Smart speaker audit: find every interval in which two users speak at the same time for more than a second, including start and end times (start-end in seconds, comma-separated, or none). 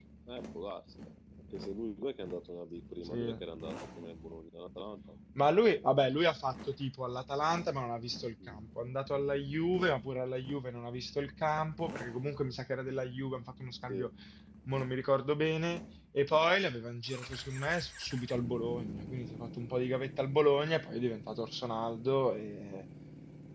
none